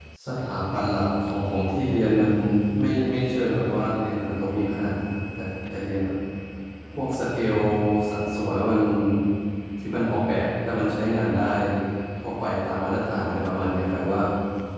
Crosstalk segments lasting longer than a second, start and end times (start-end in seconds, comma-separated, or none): none